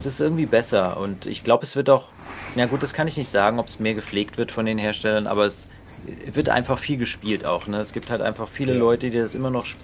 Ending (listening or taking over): listening